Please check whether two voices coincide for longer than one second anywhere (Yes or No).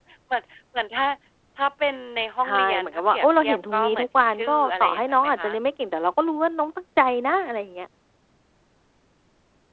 Yes